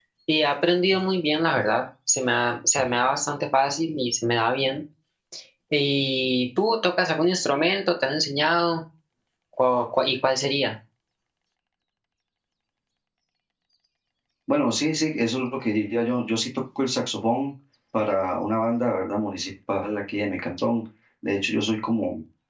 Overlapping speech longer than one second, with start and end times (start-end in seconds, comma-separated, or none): none